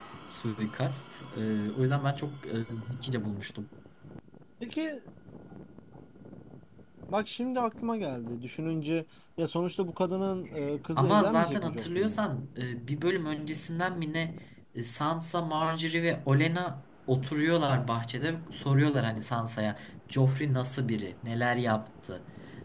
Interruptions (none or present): present